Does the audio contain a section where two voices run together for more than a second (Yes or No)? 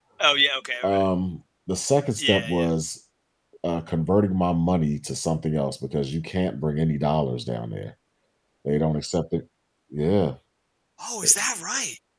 No